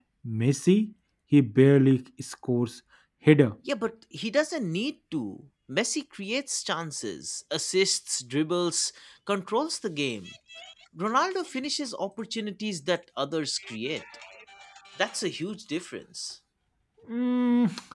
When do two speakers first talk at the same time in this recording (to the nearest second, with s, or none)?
none